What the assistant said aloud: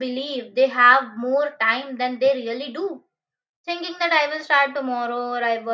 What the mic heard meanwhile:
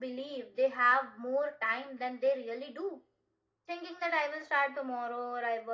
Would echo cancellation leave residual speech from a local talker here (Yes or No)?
No